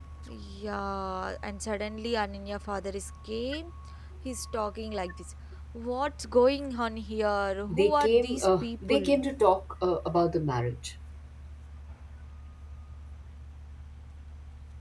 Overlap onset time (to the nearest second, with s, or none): 8 s